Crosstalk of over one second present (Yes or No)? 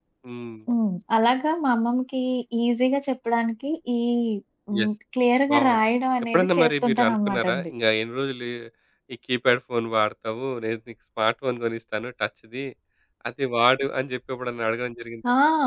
Yes